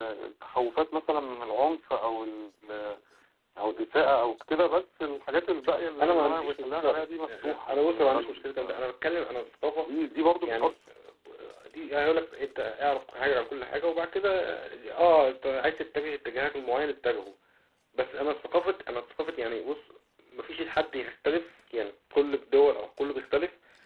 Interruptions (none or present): present